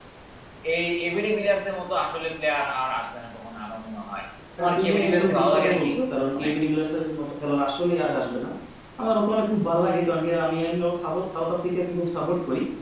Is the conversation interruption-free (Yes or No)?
No